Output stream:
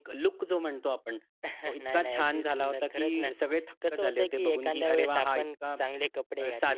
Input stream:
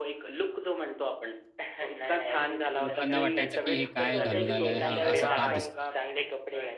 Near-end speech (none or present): present